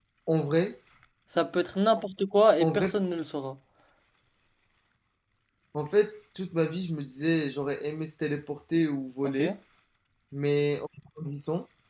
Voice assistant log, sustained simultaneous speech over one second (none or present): none